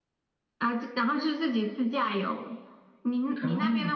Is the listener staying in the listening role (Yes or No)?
Yes